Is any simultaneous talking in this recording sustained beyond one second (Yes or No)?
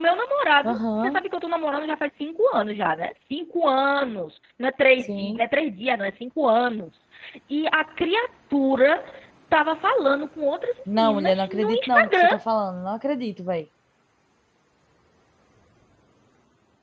Yes